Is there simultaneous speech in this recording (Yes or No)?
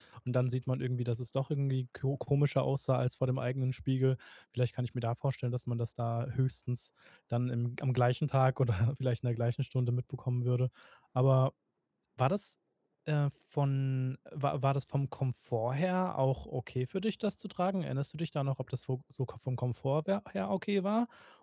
No